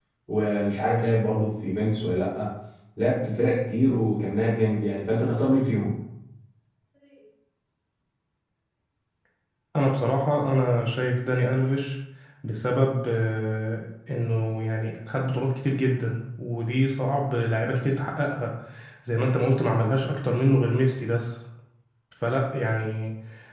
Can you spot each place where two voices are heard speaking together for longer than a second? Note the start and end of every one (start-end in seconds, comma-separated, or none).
none